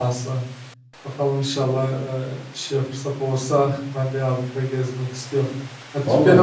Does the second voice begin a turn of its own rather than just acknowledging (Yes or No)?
No